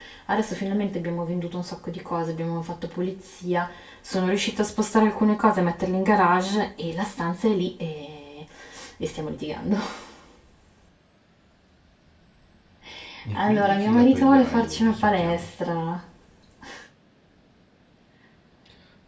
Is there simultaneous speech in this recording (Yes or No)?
Yes